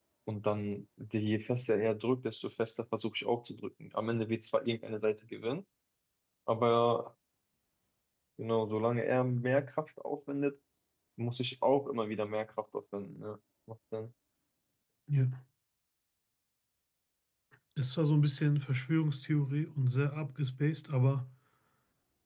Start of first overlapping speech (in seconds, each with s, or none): none